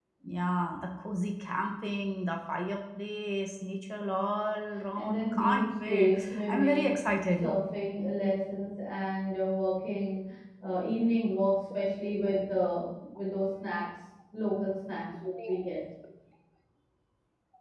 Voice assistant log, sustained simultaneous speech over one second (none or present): present